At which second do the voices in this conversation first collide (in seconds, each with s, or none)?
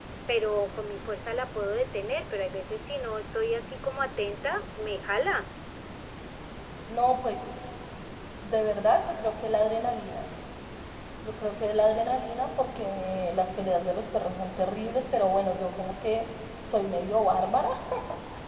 none